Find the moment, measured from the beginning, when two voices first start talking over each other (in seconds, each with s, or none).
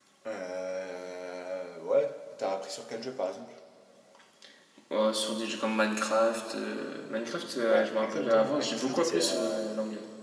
7.7 s